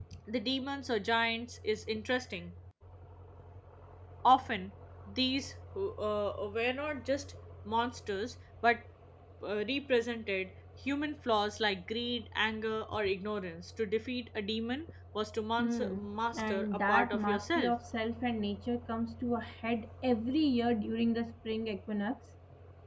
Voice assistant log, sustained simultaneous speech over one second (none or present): present